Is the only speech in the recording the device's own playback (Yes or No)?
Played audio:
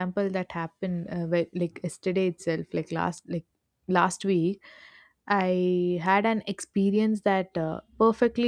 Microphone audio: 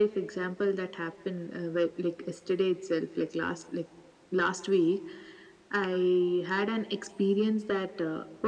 Yes